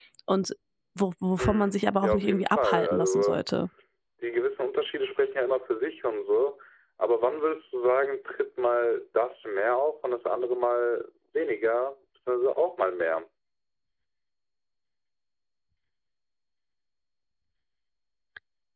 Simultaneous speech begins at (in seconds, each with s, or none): 1.4 s